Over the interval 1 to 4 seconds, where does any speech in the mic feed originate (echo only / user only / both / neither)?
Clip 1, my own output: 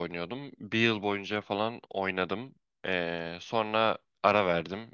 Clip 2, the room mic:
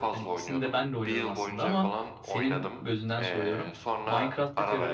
both